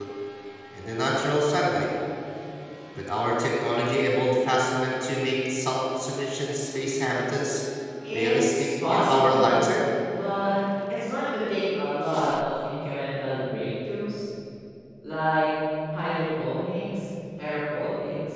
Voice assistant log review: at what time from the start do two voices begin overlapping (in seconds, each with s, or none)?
8.1 s